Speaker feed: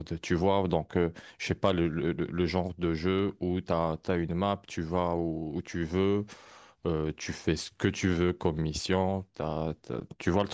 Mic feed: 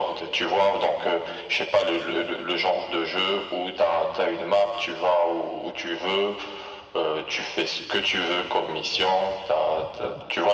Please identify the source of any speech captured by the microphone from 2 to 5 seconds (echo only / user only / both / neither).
echo only